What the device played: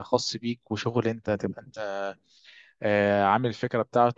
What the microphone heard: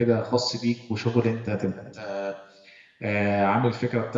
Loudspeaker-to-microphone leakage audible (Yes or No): Yes